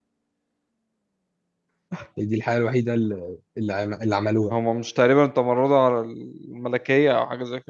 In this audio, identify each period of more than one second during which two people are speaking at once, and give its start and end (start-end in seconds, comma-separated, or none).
none